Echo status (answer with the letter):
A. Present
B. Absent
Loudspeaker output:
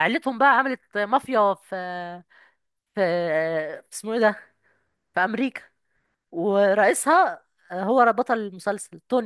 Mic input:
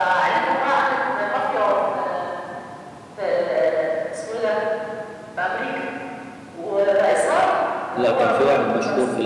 A